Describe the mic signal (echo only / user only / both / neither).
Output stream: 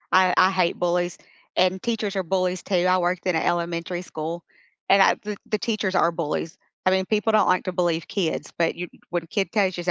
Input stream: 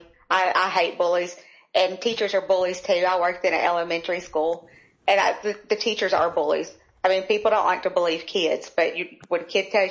echo only